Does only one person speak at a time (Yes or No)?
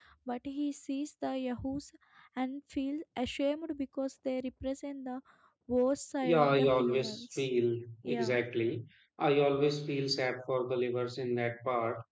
No